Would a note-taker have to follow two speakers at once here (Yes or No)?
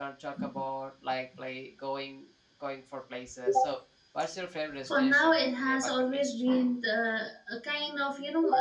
Yes